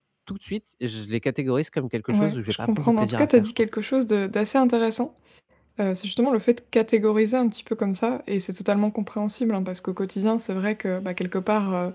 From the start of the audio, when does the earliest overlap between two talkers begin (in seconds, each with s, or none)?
2.1 s